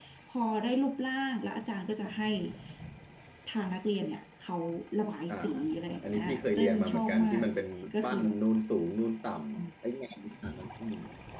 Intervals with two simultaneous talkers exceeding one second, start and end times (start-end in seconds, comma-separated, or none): 6.0-7.4